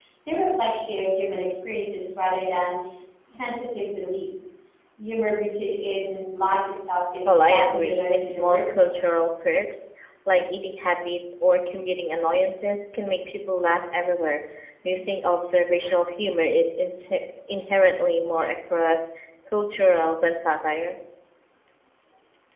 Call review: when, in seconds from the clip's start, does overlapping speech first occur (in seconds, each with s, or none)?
7.2 s